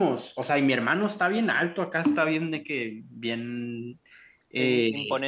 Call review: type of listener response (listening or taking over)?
listening